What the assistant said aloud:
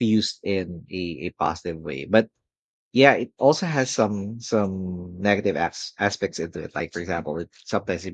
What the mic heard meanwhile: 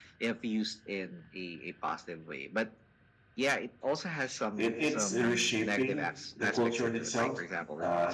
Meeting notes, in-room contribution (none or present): present